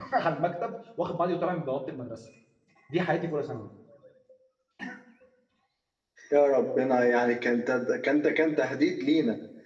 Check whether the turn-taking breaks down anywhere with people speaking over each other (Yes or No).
No